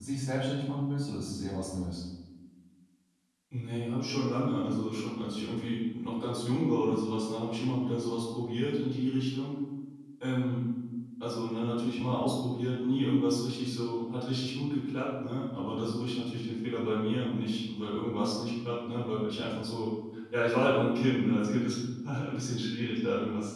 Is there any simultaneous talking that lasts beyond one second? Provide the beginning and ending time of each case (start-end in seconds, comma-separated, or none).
none